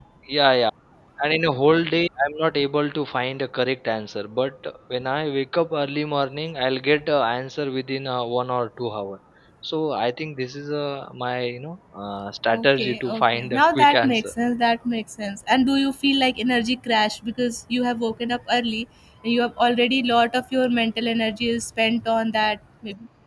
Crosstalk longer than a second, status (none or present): present